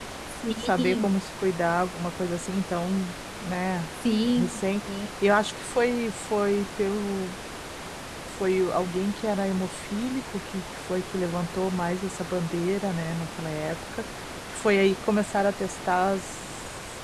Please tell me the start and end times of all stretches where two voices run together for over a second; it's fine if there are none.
none

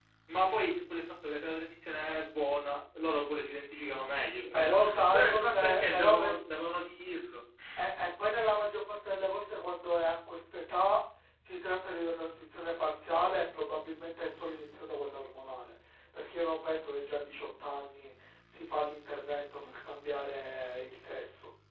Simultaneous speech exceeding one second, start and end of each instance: 4.5-6.3

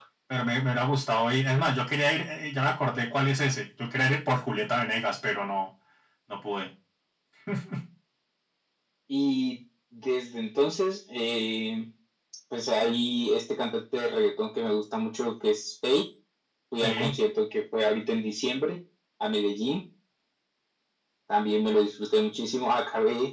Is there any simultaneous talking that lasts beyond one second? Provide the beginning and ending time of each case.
none

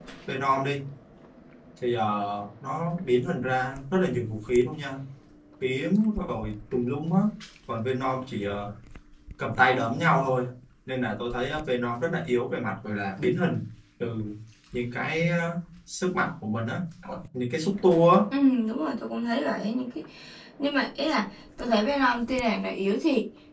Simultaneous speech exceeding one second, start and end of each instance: none

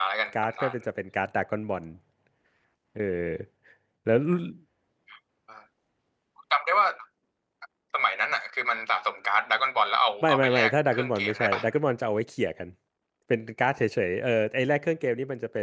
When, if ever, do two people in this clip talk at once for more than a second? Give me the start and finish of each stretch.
10.2-11.6

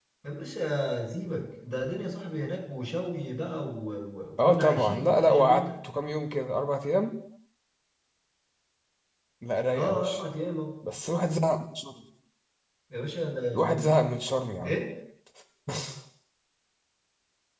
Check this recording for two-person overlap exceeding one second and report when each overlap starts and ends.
4.4-5.7

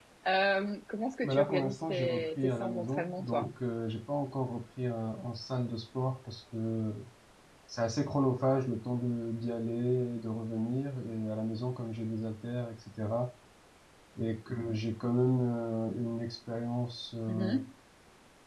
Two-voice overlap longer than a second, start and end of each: 1.2-3.5

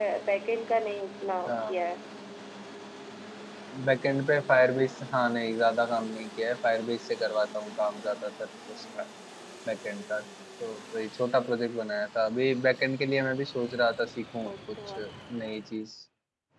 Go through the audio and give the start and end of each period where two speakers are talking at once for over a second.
none

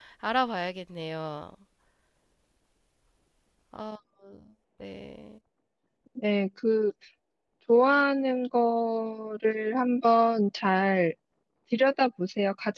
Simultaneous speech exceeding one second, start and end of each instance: none

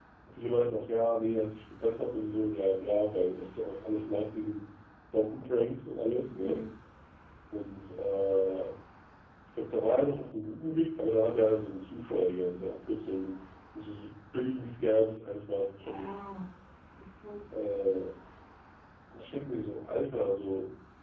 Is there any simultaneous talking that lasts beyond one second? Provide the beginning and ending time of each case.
none

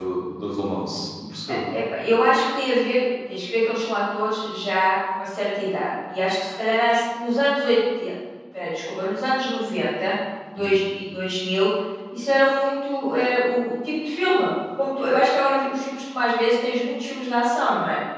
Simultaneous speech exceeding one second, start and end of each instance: none

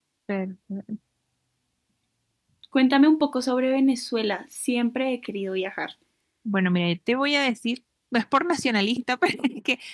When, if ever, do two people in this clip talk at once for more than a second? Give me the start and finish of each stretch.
none

